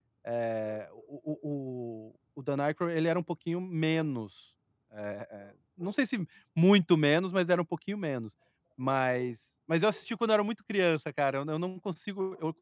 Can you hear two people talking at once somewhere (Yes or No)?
No